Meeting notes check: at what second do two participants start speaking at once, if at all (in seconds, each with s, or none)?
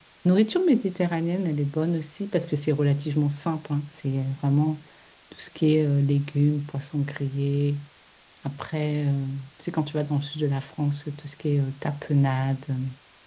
none